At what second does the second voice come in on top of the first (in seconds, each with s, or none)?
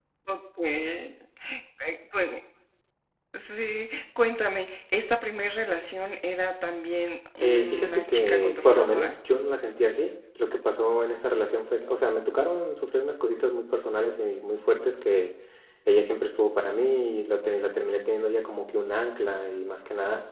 7.4 s